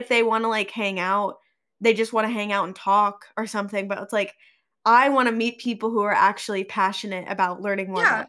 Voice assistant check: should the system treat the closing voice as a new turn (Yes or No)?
Yes